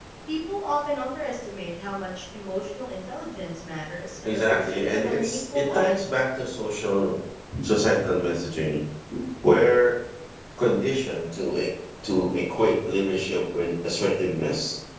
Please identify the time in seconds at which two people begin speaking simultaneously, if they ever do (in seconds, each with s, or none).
4.2 s